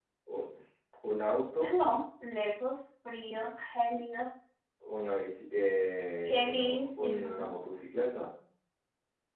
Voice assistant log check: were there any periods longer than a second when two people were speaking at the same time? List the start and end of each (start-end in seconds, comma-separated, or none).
6.2-7.5